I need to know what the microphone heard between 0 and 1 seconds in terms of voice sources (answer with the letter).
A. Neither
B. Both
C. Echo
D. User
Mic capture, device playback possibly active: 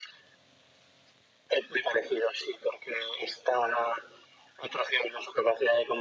A